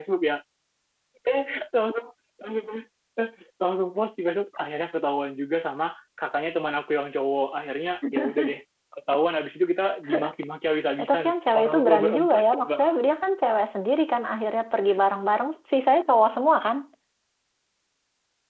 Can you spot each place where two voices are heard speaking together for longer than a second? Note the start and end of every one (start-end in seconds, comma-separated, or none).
11.0-12.9